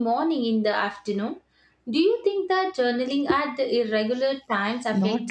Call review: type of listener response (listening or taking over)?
taking over